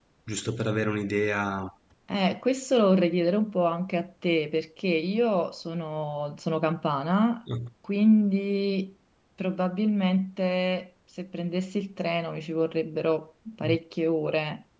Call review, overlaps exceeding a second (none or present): none